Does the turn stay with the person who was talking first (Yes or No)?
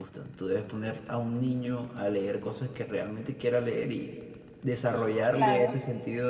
Yes